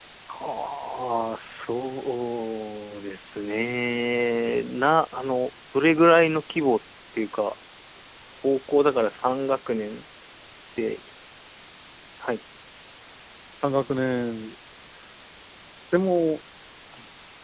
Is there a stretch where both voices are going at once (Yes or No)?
No